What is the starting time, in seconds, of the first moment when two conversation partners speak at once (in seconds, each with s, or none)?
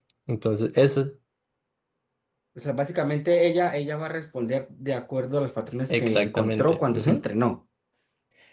5.9 s